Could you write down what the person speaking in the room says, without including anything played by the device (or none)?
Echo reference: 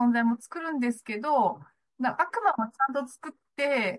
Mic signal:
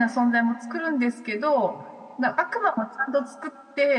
none